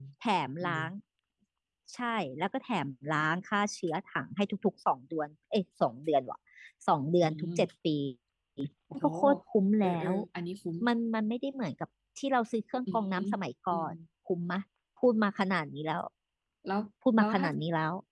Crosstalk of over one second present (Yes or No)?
No